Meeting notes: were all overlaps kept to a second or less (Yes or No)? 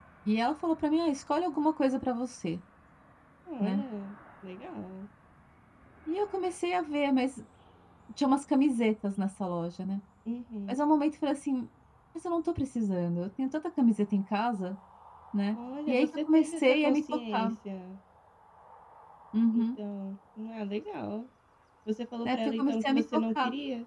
No